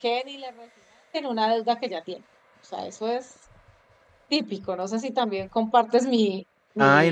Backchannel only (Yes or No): No